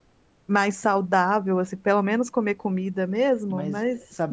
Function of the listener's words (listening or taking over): taking over